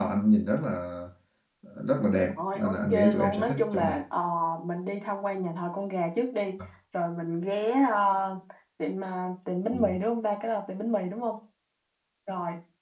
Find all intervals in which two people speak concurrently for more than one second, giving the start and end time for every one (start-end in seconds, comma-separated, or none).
2.2-4.0